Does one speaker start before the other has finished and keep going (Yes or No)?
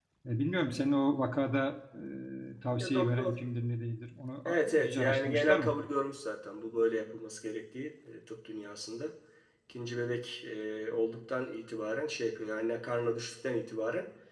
Yes